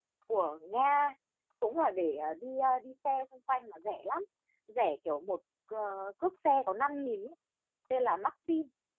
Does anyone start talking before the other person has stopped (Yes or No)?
No